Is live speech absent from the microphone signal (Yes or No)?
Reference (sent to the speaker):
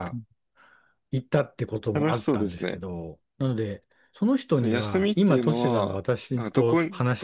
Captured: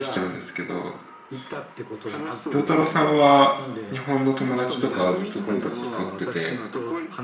No